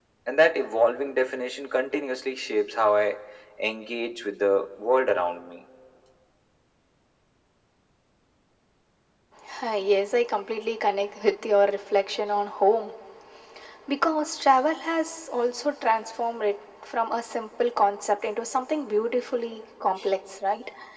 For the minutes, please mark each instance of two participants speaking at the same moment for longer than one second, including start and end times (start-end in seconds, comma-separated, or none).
none